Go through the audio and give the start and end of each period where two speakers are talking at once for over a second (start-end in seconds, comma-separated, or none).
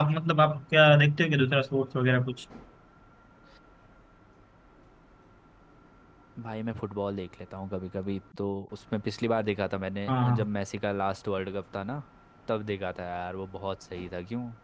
none